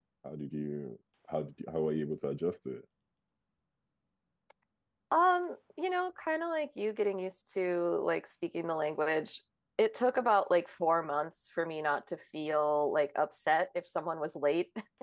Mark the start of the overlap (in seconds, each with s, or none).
none